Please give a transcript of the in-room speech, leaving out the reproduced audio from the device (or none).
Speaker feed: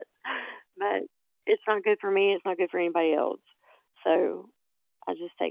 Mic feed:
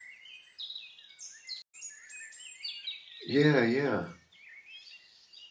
Yeah, yeah.